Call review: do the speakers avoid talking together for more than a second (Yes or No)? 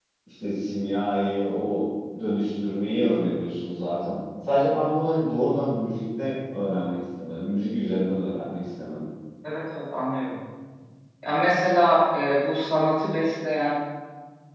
Yes